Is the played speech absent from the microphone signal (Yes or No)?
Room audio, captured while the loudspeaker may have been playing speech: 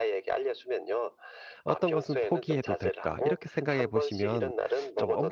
No